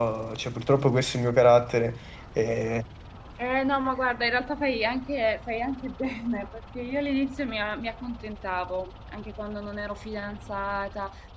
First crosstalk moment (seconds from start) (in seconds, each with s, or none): none